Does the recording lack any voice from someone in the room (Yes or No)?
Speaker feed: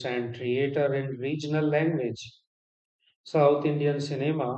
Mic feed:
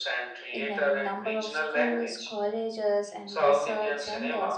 No